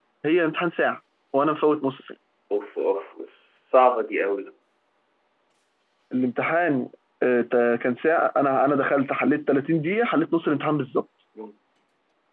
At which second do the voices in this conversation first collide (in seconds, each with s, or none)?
none